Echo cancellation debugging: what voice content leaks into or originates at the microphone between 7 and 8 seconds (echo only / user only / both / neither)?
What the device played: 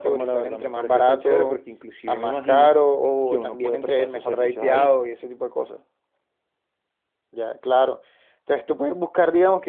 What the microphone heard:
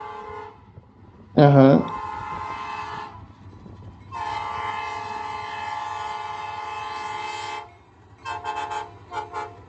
neither